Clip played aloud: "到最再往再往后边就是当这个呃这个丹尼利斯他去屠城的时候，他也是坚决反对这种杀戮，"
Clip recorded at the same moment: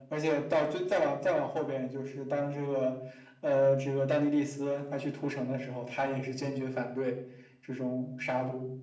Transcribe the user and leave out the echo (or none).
none